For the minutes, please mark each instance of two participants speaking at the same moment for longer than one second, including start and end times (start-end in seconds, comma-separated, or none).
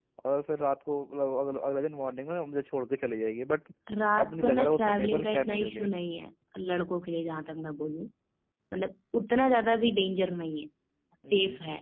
4.2-5.9